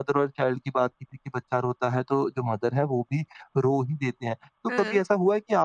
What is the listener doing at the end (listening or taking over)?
listening